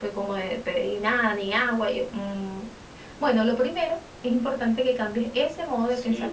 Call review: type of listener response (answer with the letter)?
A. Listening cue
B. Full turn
B